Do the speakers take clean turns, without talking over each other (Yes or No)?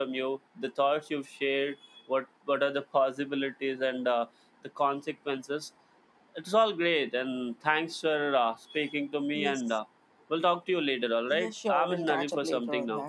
No